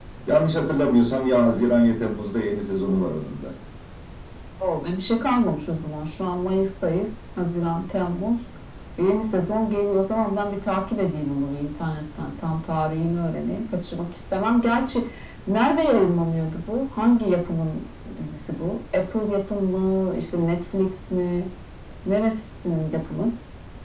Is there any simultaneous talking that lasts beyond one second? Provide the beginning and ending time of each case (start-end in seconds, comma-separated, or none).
none